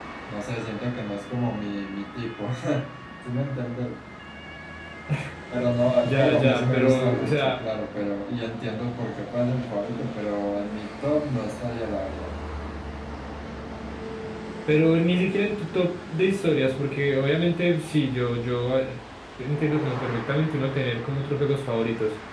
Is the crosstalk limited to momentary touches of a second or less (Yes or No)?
No